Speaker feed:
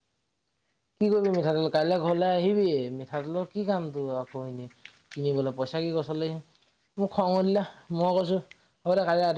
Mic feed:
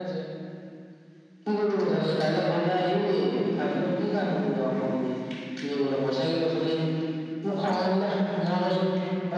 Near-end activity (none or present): present